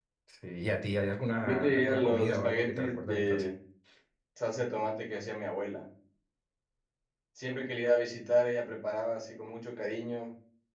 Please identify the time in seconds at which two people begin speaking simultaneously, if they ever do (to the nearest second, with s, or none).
1 s